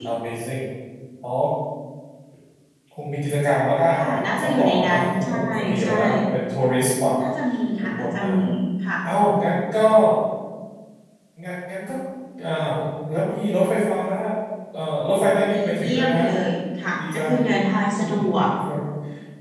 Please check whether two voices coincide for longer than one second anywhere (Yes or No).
Yes